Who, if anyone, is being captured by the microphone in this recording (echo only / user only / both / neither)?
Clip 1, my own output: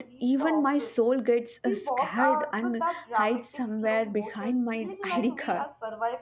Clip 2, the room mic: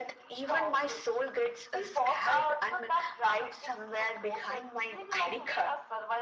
echo only